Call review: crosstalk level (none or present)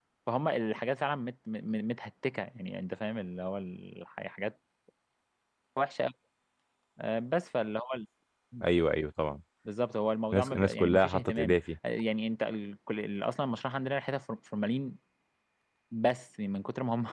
present